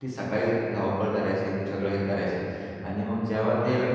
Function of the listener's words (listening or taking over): listening